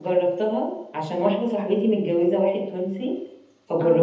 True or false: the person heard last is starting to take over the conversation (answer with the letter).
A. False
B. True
A